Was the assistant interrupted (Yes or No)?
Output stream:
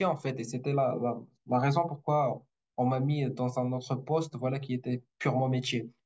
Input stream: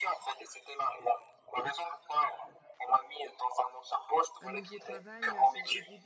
Yes